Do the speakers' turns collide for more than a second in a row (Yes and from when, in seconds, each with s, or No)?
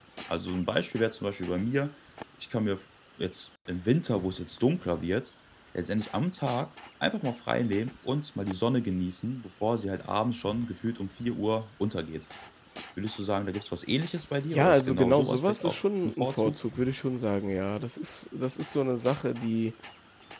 Yes, from 14.5 s